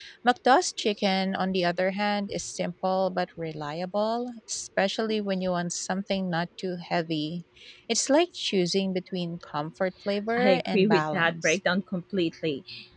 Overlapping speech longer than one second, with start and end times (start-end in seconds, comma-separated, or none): 10.4-11.6